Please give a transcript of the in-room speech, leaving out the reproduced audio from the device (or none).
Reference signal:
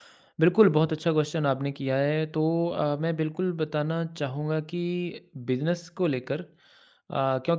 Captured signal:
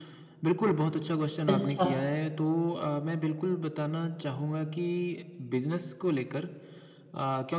अच्छा